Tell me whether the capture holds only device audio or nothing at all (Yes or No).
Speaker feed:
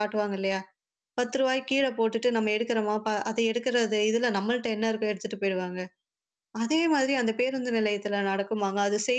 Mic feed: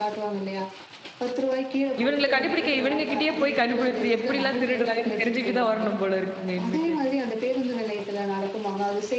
No